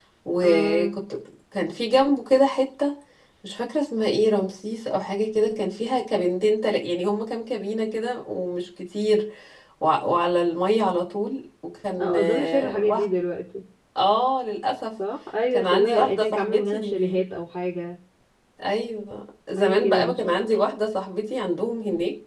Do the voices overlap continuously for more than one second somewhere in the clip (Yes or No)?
Yes